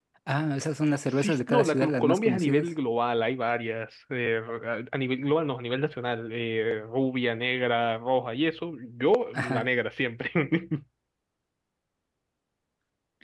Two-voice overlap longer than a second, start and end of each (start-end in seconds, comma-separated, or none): 1.2-2.7